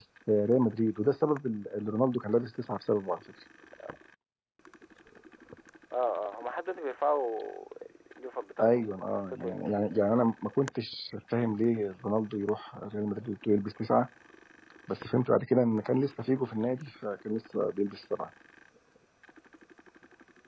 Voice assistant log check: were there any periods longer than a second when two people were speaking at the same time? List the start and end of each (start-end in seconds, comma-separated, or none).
8.6-10.2